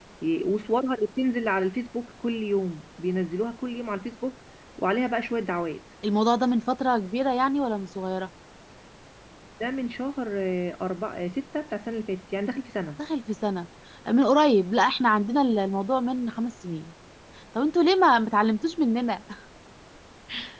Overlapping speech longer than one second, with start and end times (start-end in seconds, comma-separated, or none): none